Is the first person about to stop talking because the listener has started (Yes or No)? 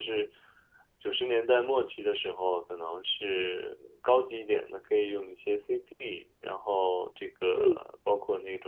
No